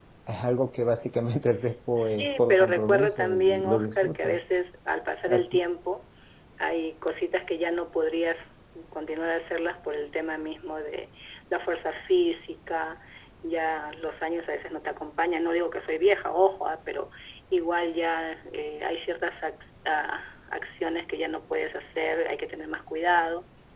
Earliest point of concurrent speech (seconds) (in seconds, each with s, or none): 2.0 s